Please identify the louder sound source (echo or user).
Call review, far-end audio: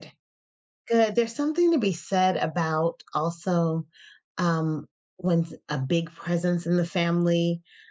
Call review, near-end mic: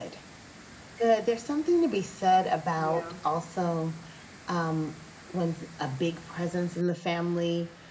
echo